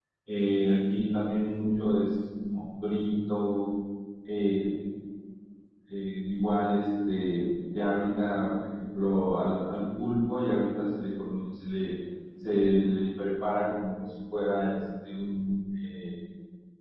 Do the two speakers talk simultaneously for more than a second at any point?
No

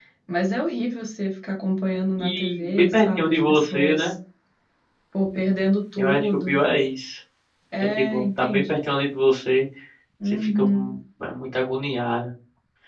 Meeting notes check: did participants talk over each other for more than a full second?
Yes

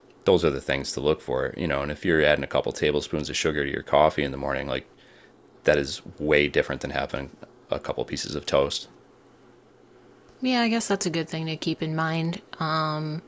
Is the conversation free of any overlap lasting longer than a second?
Yes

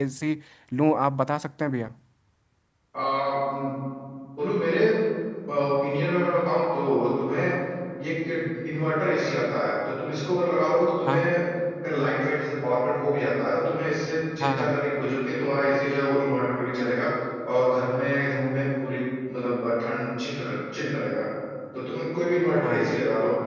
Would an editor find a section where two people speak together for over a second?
No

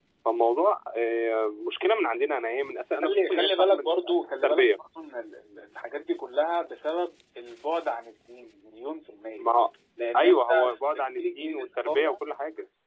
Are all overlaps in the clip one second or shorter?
No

